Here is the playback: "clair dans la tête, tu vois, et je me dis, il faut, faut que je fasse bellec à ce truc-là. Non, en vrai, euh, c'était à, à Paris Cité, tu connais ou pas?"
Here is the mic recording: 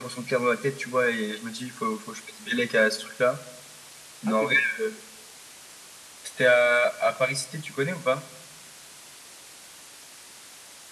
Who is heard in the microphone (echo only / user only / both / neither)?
both